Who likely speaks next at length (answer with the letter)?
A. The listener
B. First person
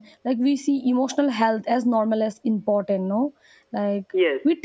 B